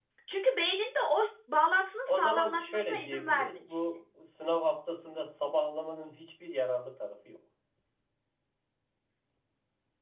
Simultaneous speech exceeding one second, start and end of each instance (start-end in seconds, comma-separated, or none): 2.1-3.8